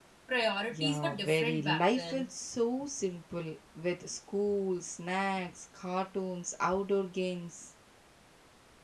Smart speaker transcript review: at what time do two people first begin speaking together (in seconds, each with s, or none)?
0.7 s